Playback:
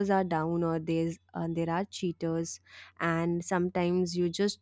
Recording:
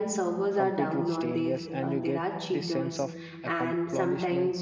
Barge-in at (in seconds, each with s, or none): 0.6 s